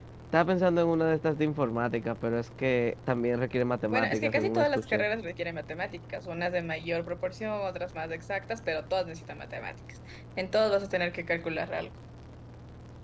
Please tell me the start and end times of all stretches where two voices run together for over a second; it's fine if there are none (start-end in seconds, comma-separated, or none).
3.9-5.0